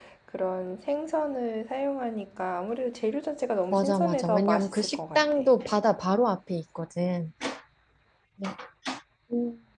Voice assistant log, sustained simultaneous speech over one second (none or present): present